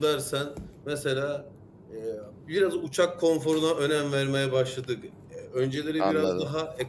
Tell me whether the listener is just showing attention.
Yes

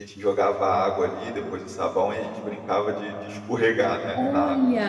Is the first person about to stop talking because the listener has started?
Yes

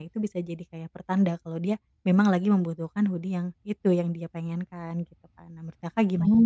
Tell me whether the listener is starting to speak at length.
Yes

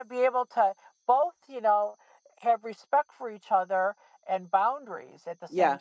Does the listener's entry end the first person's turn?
Yes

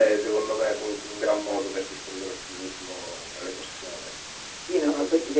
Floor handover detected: Yes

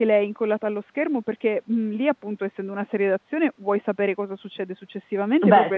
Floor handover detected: No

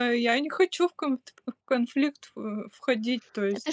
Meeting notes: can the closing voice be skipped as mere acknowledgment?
No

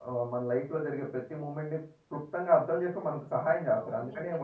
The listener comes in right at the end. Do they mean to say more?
Yes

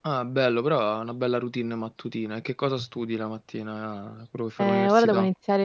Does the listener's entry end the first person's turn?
Yes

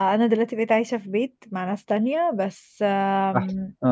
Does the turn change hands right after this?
No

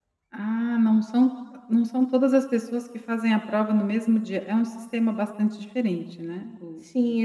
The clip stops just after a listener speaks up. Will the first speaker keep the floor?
No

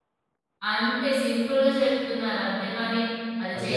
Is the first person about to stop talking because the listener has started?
No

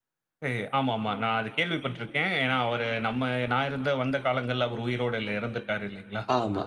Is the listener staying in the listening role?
No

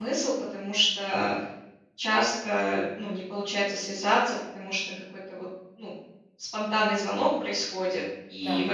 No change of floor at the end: Yes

